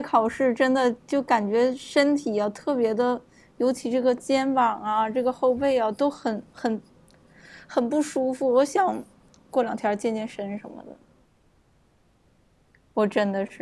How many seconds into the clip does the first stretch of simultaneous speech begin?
none

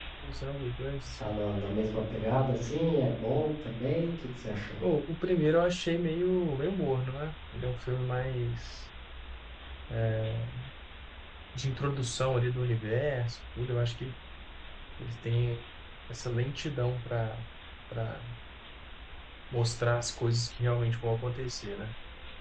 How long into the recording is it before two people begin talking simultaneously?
none

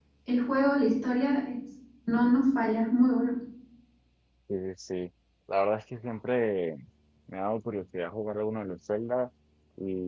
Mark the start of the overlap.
none

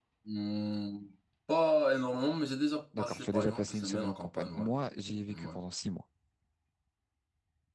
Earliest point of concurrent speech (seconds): 2.9 s

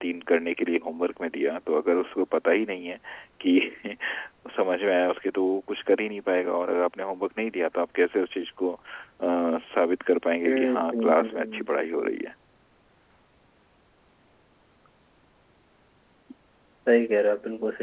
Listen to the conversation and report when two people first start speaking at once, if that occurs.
10.4 s

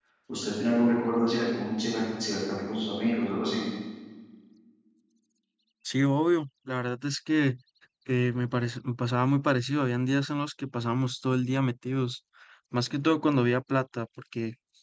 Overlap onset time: none

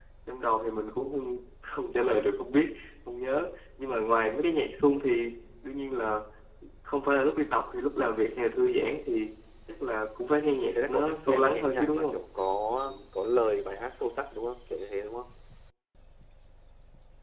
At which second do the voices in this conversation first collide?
10.3 s

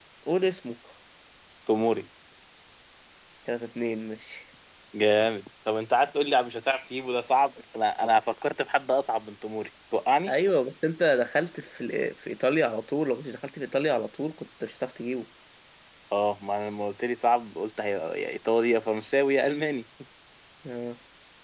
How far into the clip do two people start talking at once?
none

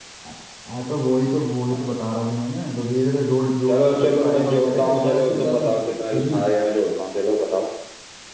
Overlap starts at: 3.7 s

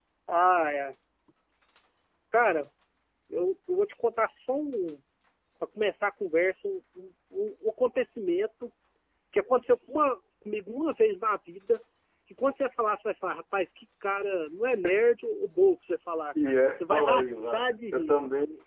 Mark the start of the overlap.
16.4 s

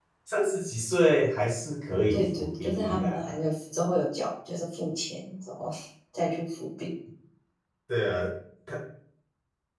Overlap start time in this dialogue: 2.1 s

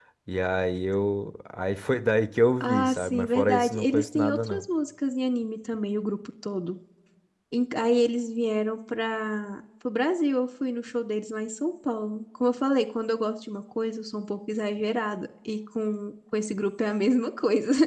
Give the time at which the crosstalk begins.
2.6 s

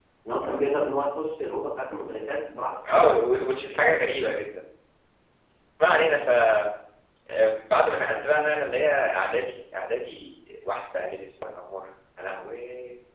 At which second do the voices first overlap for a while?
none

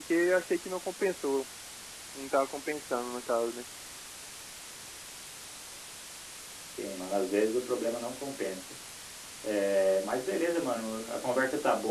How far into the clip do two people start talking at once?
none

